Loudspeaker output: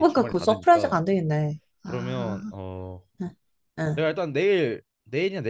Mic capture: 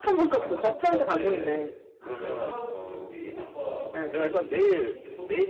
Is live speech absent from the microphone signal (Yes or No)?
No